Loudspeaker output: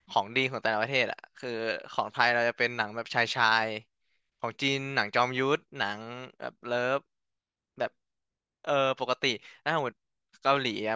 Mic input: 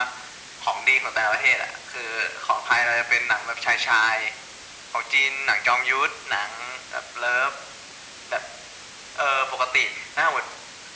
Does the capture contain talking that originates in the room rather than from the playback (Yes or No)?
No